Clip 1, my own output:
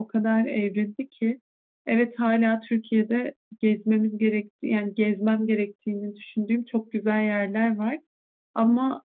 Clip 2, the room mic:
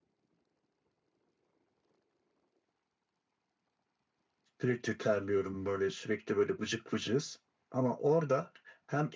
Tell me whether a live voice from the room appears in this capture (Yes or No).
Yes